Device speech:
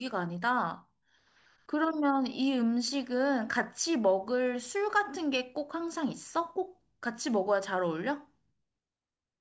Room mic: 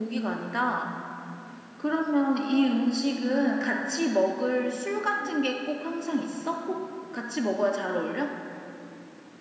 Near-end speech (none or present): none